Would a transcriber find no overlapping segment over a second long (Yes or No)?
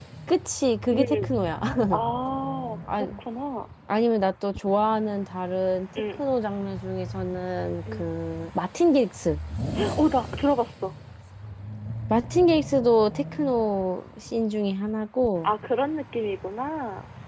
Yes